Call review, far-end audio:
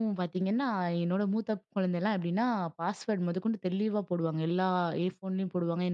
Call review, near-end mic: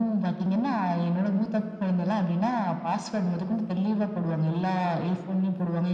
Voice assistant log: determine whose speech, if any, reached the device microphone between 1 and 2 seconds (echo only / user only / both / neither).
echo only